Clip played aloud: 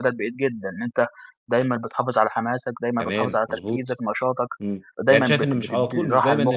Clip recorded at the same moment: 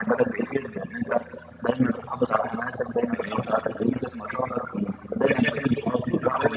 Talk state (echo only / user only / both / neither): echo only